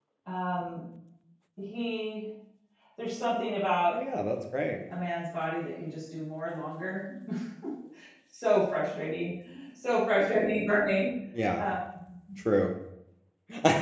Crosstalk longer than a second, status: none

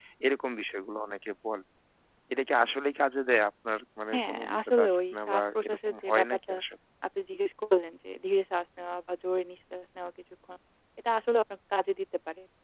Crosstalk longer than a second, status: present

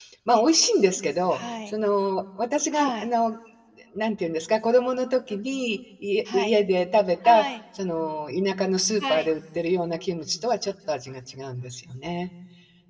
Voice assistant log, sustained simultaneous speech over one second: none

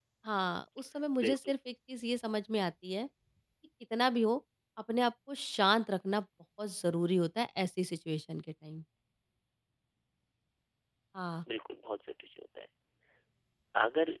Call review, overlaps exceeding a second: none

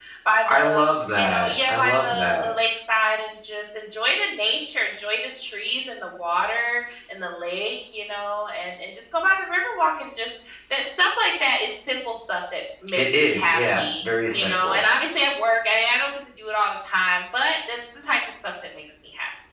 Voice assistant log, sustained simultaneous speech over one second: present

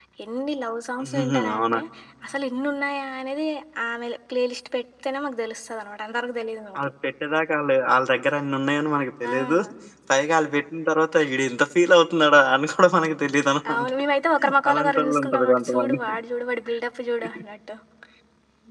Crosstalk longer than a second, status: present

